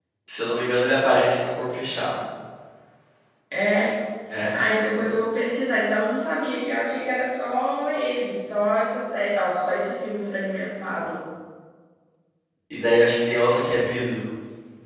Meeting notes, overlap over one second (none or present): none